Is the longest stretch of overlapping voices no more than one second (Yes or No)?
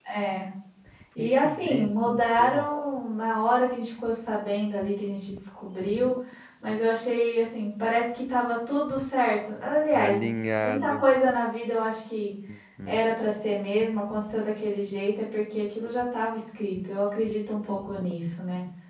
No